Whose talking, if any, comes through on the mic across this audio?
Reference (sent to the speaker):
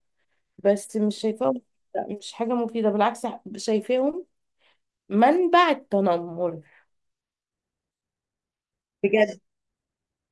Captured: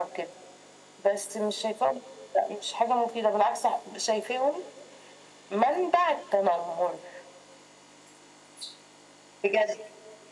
echo only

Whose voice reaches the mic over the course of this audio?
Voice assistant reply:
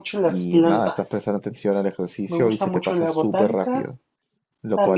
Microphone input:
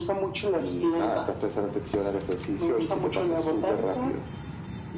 echo only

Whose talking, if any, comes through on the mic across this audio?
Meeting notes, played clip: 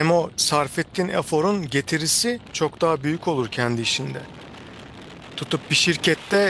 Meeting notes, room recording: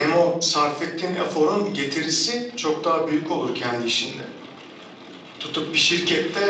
echo only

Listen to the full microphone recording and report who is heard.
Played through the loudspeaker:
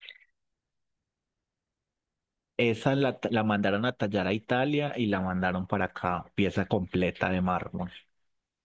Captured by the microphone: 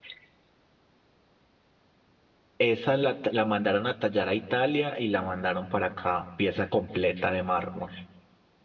echo only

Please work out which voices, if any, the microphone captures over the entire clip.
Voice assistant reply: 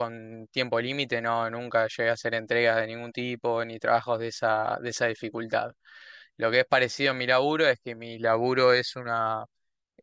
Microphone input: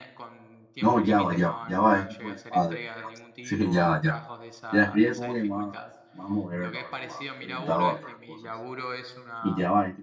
both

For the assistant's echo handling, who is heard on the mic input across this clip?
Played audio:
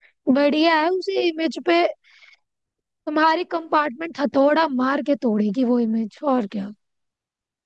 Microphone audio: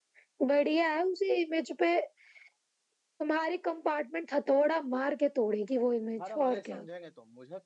both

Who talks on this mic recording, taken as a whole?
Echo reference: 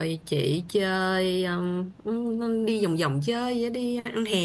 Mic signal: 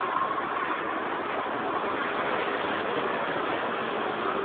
neither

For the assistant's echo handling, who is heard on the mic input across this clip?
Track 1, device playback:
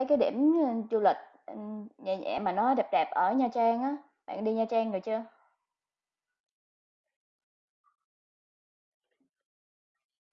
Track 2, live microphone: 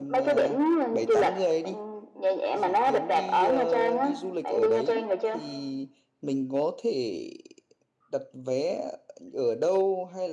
both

